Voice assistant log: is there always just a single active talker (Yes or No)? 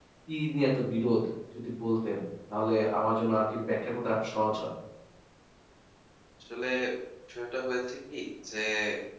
Yes